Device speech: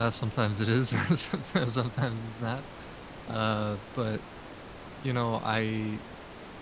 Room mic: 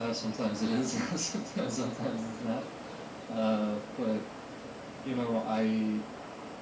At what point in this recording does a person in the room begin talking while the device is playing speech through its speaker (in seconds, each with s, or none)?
none